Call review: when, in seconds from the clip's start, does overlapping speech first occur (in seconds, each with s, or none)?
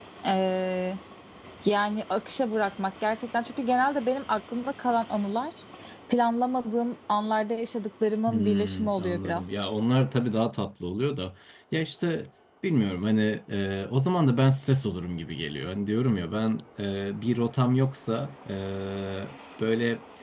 8.3 s